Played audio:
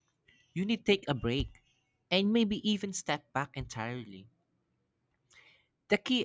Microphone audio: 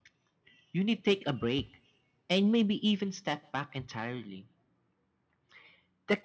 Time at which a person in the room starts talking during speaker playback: none

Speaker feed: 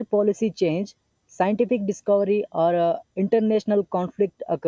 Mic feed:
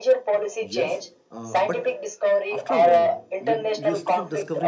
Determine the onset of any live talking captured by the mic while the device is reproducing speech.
0.6 s

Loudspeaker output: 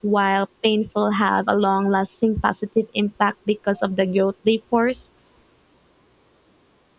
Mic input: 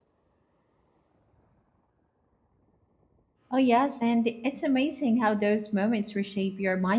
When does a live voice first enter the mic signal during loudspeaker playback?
3.5 s

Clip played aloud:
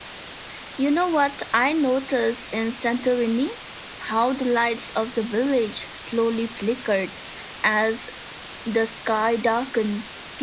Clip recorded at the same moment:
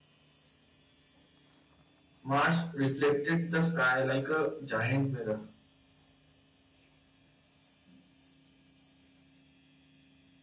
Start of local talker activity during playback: 2.2 s

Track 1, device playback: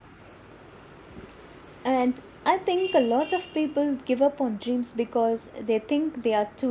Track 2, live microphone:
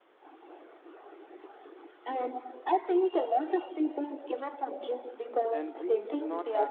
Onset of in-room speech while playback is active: 5.5 s

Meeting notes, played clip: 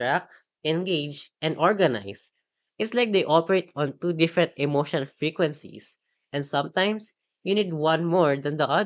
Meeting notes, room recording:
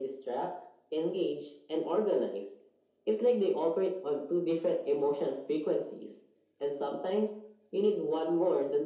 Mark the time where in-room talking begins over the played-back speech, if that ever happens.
none

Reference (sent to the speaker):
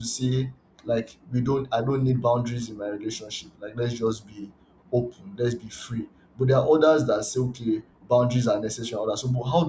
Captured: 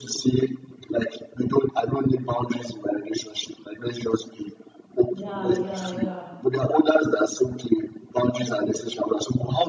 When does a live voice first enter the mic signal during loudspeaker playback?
5.1 s

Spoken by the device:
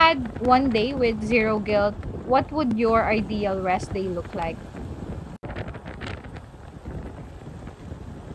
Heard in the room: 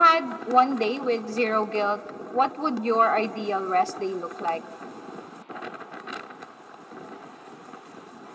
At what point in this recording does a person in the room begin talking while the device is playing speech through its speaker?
none

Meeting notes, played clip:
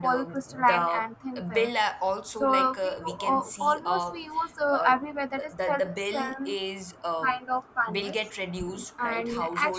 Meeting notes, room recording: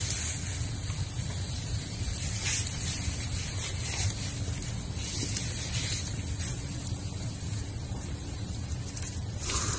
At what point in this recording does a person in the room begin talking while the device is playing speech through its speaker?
none

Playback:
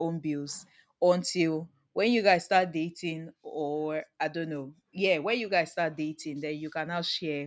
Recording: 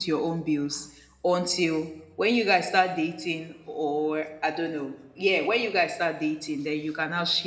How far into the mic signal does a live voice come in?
none

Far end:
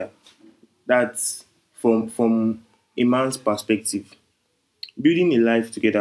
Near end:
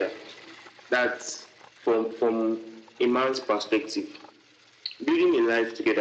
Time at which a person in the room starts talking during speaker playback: none

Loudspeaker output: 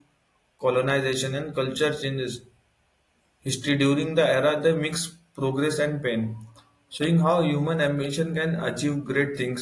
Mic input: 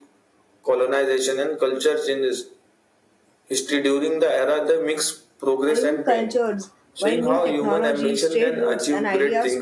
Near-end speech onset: 5.7 s

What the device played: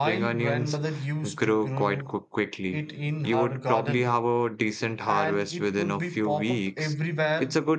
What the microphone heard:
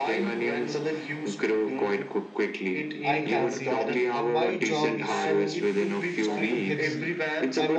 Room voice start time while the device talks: 3.0 s

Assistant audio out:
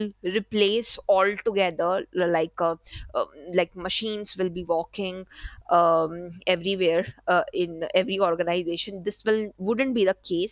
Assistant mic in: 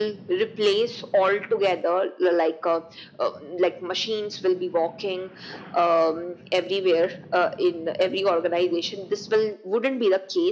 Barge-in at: none

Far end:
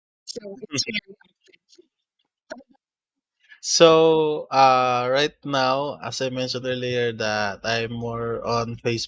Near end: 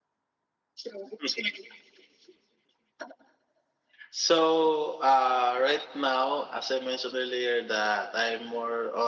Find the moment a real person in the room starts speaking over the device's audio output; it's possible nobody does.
none

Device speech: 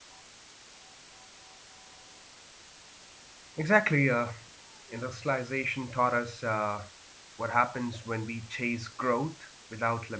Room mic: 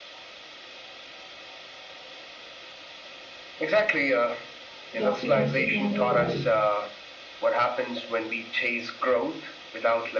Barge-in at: 5.0 s

